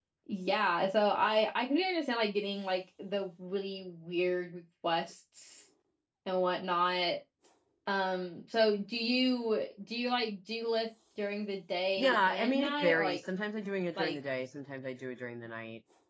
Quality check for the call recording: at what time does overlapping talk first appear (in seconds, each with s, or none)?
12.0 s